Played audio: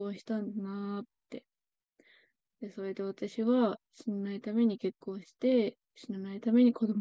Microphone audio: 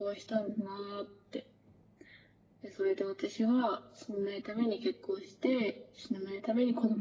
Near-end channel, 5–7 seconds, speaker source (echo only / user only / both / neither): echo only